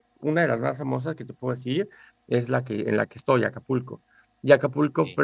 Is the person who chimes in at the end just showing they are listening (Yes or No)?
Yes